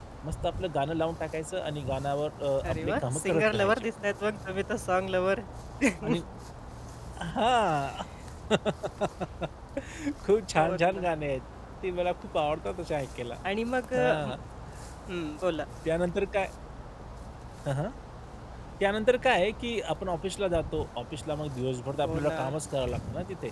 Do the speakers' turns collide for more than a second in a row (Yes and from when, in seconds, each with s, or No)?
Yes, from 2.7 s